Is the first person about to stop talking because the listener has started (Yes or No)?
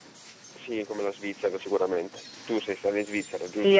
Yes